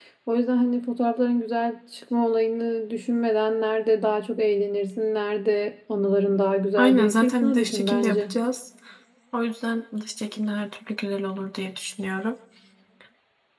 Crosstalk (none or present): present